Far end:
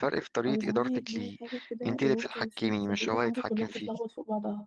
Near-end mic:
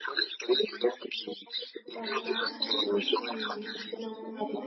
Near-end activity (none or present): present